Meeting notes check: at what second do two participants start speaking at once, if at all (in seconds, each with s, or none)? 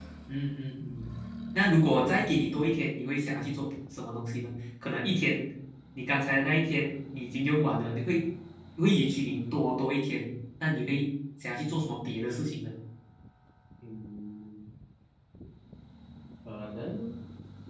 none